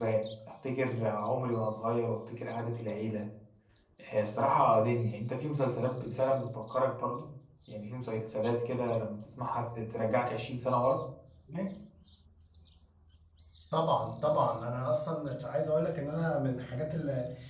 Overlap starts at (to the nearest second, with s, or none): none